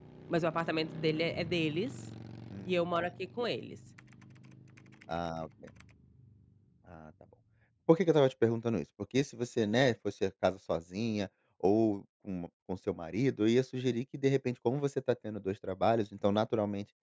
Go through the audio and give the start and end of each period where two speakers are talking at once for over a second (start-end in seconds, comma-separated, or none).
none